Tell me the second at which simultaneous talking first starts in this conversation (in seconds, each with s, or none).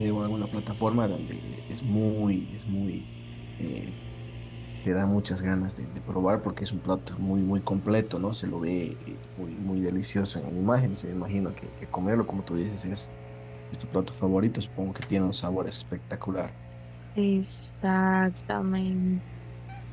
none